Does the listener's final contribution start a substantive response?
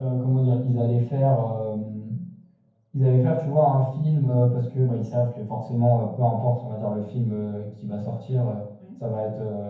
No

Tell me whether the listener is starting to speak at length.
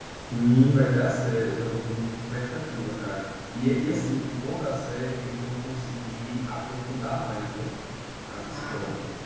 Yes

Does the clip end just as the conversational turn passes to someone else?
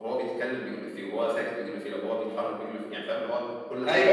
Yes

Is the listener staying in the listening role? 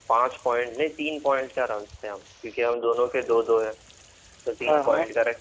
Yes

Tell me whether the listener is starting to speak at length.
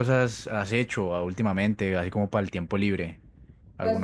Yes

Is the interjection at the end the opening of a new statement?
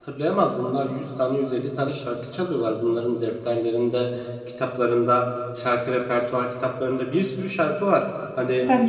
No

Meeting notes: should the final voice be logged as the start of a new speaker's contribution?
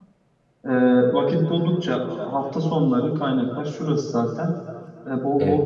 No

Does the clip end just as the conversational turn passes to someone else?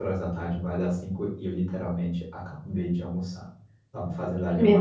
No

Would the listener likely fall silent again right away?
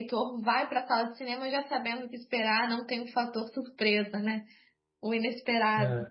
Yes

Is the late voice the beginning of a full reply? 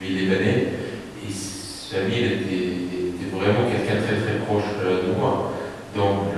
No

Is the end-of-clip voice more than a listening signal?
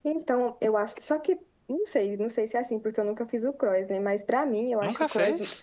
No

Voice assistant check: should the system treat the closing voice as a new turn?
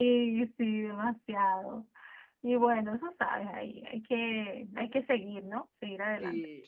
Yes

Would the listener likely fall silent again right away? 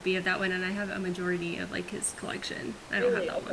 No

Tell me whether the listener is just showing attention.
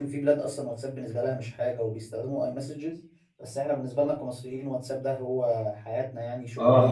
No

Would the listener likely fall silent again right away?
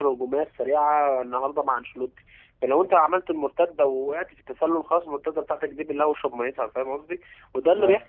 Yes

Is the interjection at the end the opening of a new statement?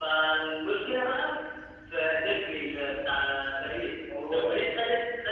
No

